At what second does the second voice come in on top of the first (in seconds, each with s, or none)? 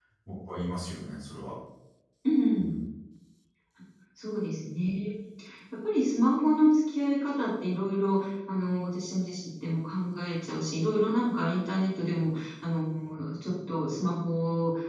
none